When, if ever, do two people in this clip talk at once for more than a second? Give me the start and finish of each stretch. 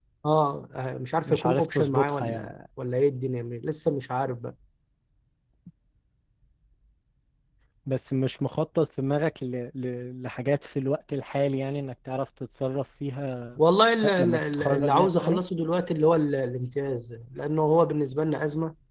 1.3-2.5, 14.0-15.4

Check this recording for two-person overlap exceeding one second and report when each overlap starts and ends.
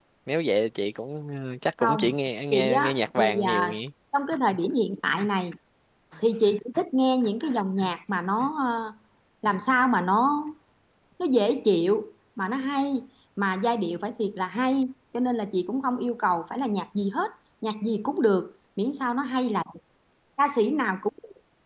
2.5-3.8

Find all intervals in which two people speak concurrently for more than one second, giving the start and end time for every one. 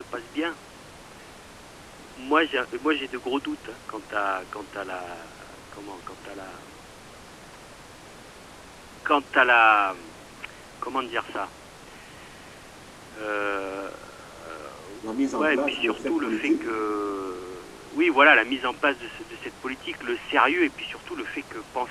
15.3-16.7

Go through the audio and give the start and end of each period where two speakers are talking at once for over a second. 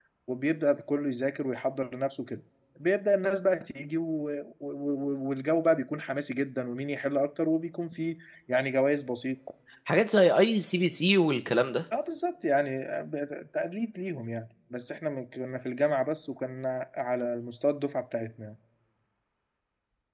none

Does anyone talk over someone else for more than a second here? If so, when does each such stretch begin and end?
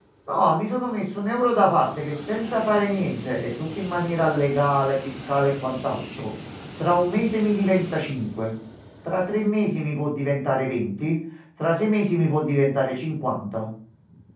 none

